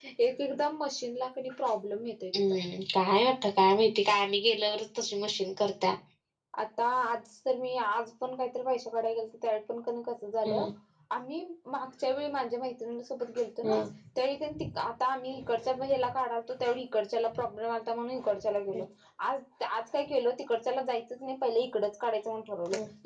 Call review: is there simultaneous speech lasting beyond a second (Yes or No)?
No